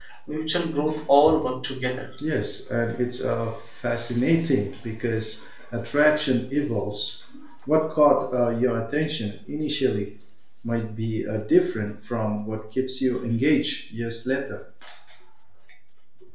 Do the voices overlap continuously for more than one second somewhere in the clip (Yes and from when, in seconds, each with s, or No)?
No